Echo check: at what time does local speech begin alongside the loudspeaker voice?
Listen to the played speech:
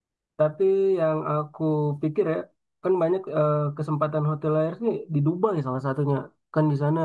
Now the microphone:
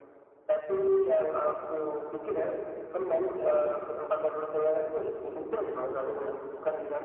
none

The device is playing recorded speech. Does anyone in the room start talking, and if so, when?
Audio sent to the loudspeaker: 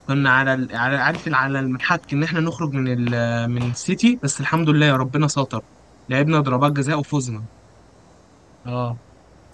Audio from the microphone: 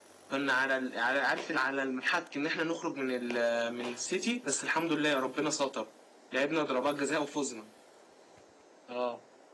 none

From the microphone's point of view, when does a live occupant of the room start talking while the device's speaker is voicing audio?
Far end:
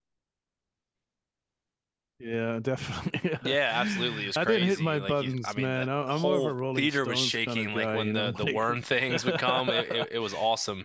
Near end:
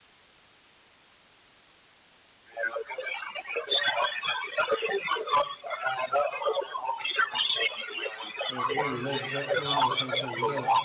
8.5 s

